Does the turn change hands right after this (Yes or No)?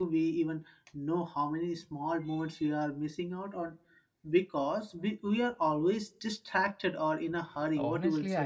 Yes